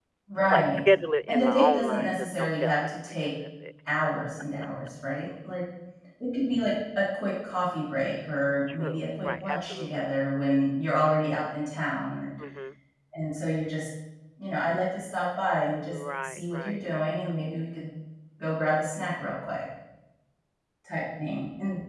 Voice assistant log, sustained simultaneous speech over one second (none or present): present